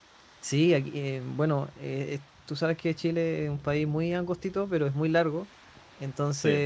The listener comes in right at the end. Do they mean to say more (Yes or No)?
No